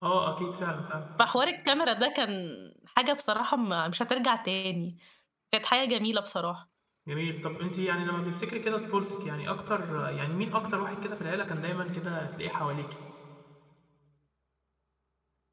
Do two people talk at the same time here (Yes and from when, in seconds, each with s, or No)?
No